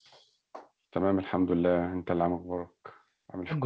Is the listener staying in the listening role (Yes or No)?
No